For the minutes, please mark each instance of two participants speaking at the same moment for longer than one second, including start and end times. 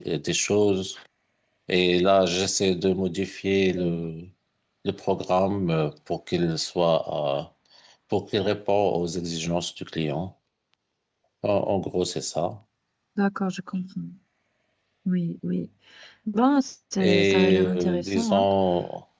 17.0-18.4

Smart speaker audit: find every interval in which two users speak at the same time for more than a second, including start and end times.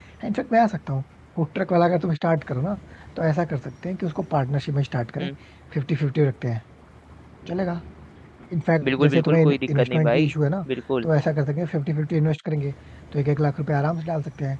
8.8-10.3

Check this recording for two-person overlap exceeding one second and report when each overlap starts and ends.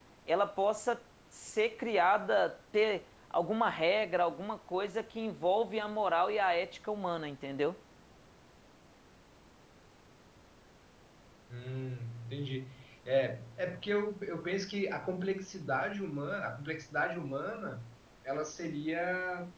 none

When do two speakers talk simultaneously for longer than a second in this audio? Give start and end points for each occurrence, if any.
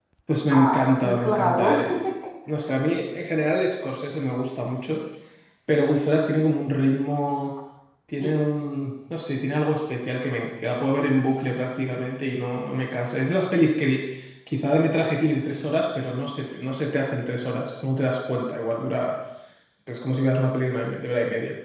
0.5-1.9

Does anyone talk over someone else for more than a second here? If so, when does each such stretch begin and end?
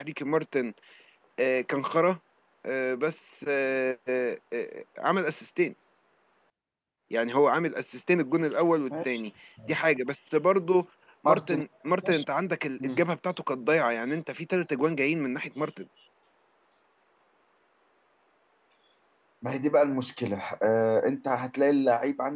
none

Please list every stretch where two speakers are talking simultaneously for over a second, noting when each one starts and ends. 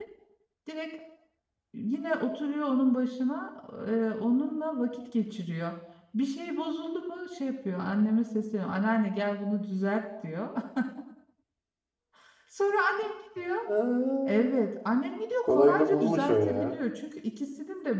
15.4-16.7

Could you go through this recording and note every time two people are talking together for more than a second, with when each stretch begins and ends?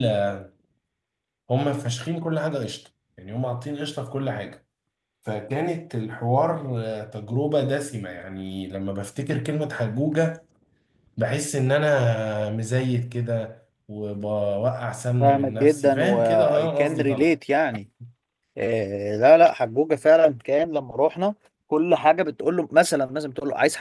15.2-17.3

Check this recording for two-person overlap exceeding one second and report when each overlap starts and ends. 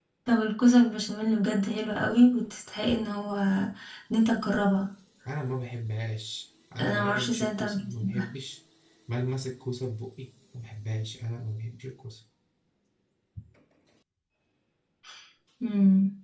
6.8-8.3

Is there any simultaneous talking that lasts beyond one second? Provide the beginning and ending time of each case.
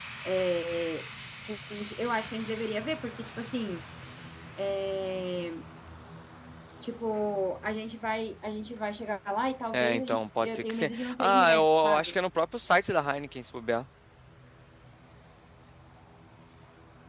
9.7-12.2

